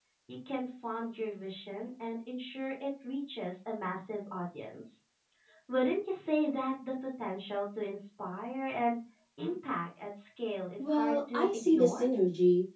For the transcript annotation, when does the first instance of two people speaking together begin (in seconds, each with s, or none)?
10.8 s